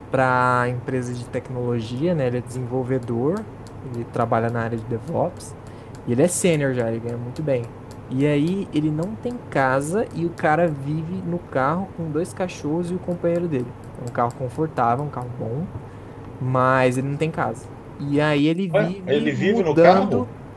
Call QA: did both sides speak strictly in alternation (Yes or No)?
No